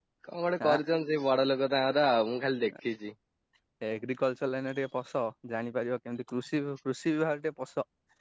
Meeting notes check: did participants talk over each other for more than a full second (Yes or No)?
No